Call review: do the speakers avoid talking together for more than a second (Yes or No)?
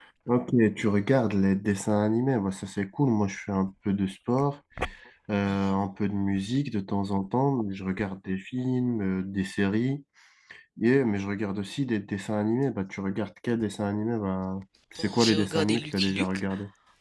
No